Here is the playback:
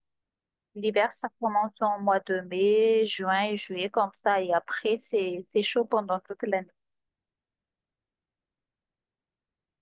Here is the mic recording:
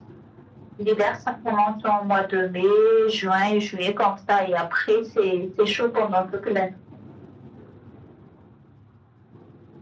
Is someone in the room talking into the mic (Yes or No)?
No